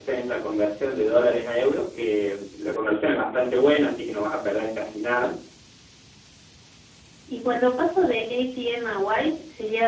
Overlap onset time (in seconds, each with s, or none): none